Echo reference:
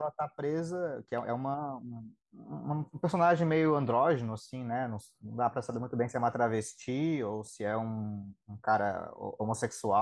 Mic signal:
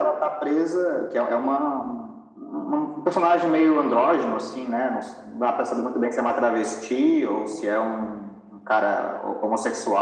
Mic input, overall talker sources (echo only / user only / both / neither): echo only